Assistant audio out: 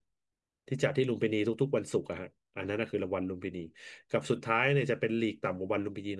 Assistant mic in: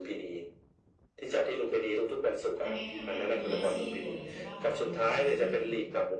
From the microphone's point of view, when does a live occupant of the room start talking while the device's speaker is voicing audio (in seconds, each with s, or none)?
2.6 s